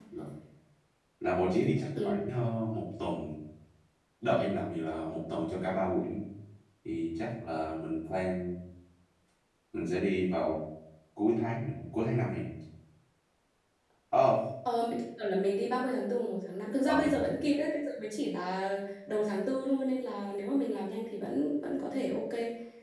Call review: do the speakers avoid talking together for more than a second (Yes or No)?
Yes